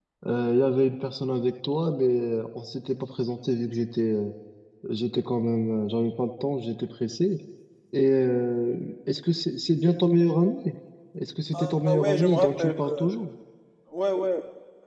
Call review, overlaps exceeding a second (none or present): present